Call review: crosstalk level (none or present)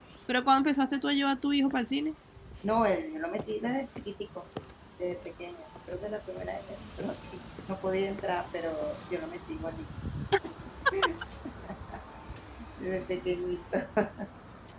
none